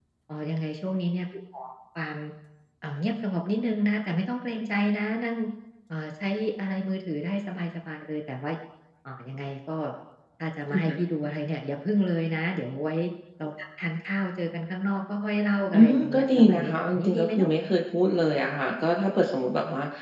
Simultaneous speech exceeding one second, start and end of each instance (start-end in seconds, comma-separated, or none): 15.7-17.5